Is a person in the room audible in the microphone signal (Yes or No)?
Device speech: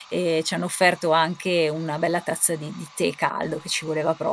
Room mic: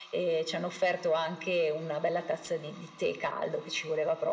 No